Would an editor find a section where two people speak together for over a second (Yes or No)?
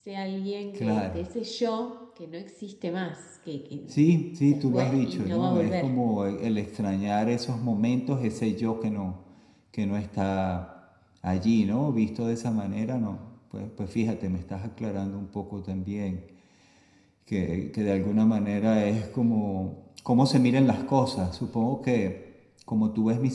Yes